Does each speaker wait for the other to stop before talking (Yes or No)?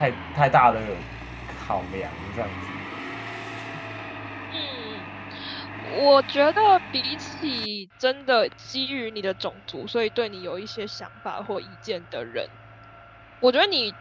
Yes